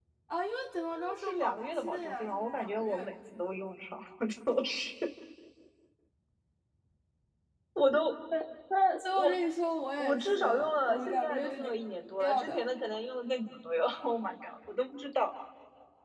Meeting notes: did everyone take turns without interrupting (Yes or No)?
No